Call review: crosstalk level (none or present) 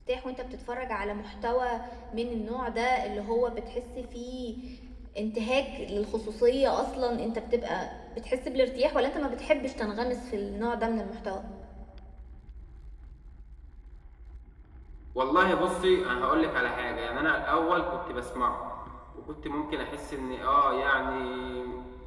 none